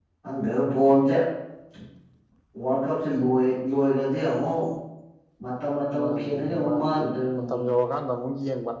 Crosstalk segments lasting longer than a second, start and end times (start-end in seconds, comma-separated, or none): 6.0-7.6